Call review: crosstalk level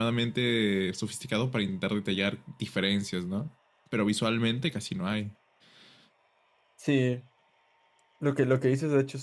none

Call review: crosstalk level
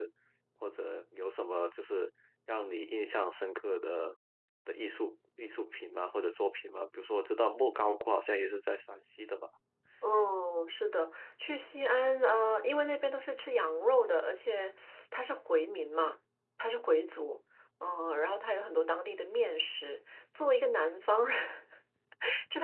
none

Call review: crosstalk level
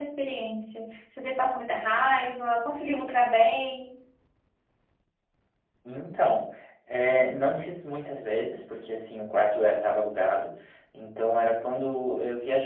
none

